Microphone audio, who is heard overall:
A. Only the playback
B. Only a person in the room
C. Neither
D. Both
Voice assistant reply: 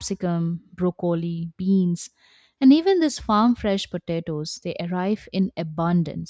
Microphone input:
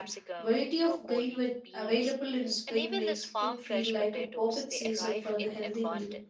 D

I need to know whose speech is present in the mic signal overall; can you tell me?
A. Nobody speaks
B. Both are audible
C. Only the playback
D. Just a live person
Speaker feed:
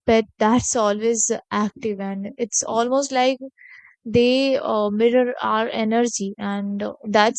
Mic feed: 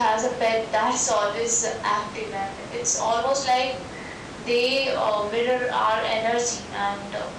C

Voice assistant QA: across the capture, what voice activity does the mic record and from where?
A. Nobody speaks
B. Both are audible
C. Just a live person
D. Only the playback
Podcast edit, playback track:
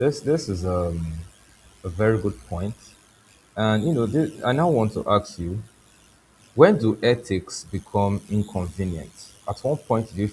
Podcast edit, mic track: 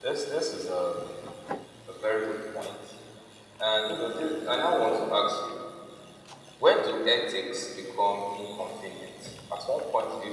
D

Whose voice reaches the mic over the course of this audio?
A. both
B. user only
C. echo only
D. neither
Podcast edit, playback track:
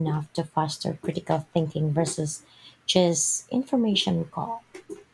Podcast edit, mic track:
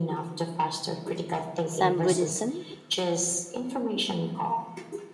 A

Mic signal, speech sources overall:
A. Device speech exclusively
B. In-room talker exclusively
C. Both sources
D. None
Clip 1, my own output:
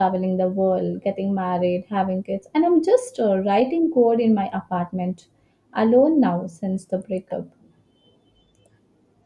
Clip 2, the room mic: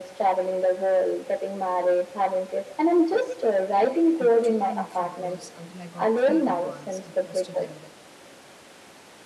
C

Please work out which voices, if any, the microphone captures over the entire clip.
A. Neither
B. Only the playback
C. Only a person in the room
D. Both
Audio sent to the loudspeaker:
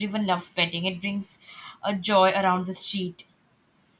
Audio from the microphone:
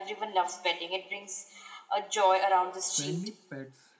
D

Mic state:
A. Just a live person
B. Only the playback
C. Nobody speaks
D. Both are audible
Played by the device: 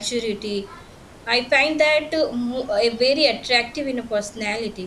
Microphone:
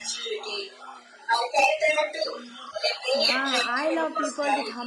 D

